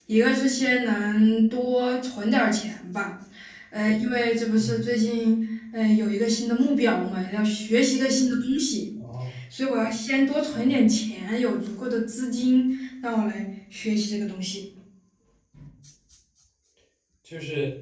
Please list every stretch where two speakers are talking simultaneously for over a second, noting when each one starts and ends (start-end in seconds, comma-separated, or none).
none